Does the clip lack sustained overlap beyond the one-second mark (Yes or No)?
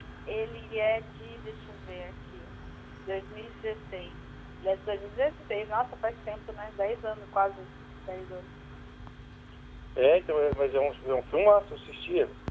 Yes